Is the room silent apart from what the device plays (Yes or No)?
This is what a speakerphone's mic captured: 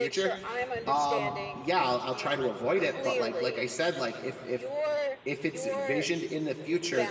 No